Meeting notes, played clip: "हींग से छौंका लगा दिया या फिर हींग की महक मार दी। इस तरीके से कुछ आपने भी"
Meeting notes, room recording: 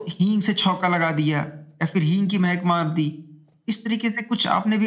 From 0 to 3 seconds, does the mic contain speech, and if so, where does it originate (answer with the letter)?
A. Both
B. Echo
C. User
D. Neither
B